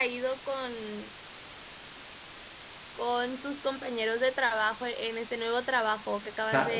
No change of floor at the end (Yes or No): No